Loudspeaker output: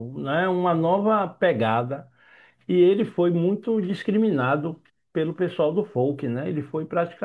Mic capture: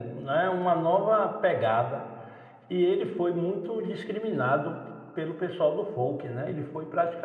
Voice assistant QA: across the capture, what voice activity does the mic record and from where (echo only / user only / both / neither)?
echo only